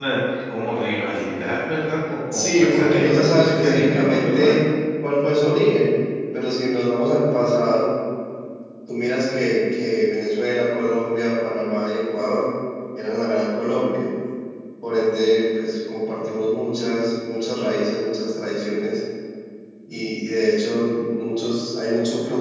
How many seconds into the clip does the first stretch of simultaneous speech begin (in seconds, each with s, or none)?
2.3 s